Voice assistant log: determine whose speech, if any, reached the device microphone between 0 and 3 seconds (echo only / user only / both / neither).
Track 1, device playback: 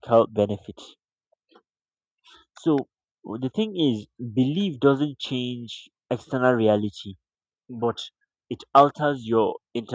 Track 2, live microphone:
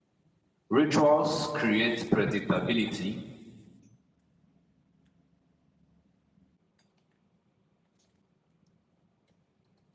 user only